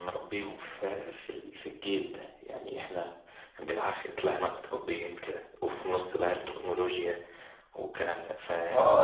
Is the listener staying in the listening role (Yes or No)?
No